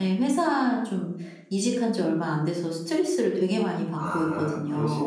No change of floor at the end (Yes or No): No